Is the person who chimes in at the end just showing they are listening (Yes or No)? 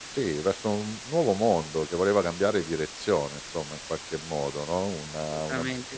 Yes